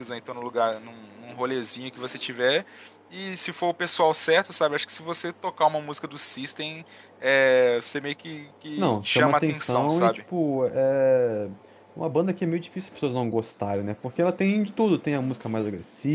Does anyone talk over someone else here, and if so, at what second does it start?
8.8 s

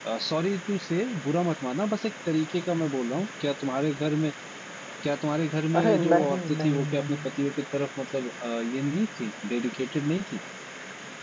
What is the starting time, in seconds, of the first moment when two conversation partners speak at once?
5.8 s

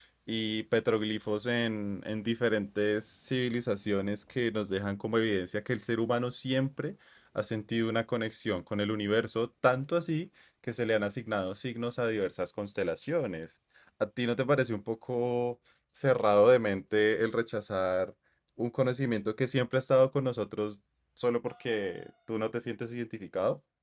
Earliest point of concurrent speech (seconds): none

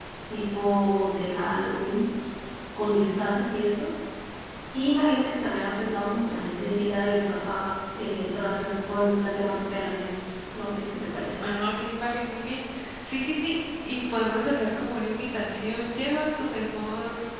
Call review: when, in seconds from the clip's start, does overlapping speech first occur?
none

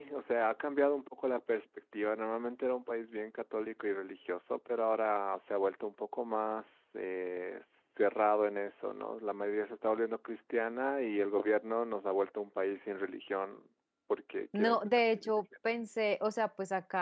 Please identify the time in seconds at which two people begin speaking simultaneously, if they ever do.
14.5 s

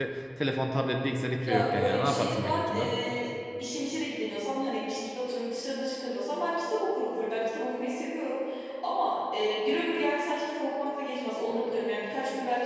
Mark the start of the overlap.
1.5 s

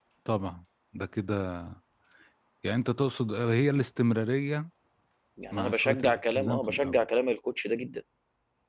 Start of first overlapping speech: 5.5 s

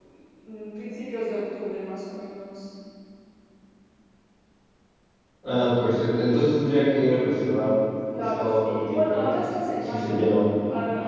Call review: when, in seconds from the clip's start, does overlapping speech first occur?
8.1 s

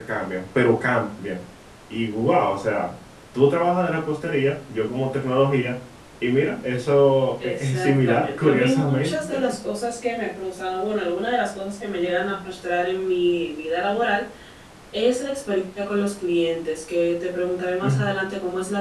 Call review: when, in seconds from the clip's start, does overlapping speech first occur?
7.4 s

